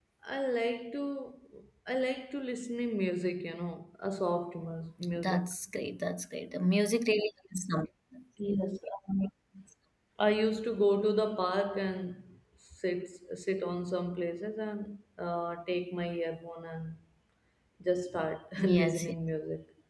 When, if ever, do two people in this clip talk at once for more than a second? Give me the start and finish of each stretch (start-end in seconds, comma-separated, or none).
none